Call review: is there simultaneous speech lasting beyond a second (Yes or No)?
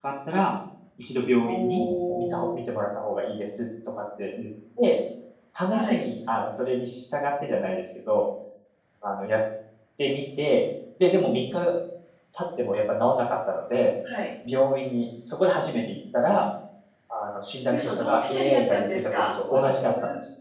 Yes